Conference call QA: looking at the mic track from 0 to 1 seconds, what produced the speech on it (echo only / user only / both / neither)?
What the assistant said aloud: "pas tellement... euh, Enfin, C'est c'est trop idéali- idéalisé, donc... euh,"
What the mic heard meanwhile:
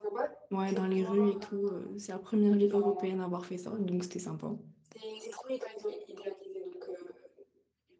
both